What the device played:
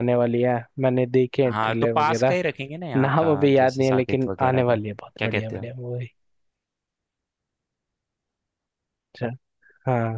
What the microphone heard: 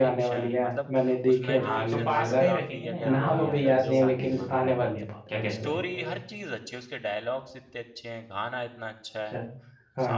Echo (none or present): present